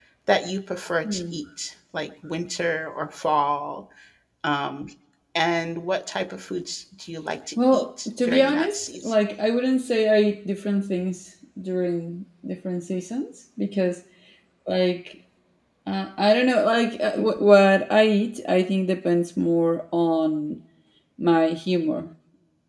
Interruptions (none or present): present